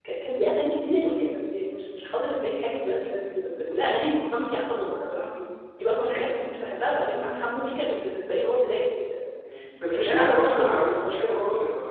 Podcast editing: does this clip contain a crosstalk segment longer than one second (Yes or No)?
Yes